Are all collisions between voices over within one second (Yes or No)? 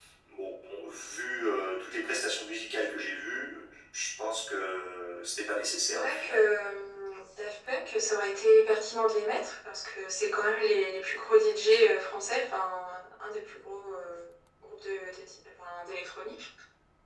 Yes